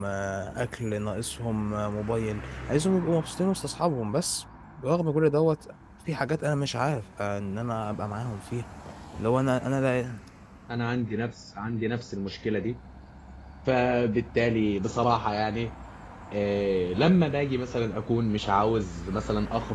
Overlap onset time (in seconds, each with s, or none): none